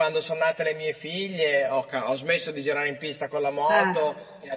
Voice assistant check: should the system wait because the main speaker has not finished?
Yes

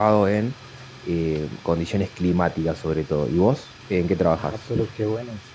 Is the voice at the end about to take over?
Yes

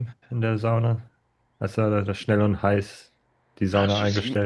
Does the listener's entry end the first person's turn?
Yes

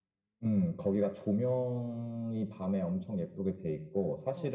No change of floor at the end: Yes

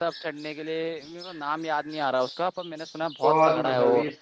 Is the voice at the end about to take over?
Yes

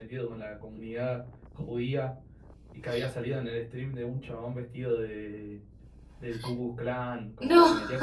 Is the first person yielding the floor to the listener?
No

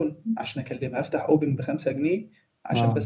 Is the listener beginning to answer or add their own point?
No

